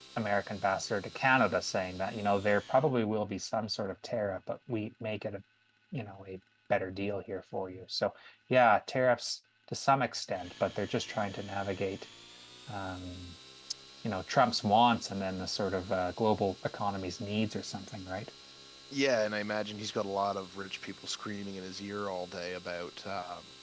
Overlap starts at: none

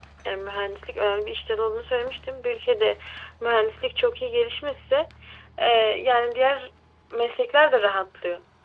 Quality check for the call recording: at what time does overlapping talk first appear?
none

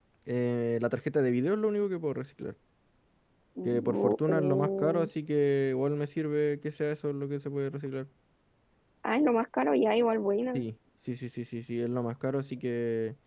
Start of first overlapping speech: 3.6 s

